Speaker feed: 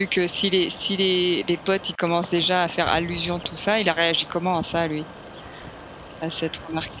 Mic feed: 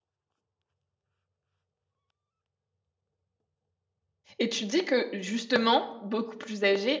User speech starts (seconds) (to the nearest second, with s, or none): 4 s